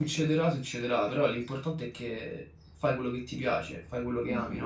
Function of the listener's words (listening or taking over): taking over